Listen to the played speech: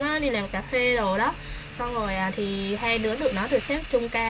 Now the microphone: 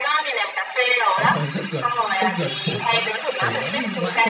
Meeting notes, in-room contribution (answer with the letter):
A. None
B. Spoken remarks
B